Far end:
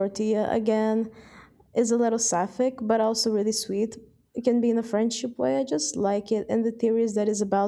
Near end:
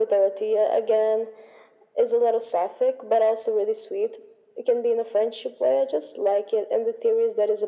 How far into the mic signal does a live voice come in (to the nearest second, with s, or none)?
none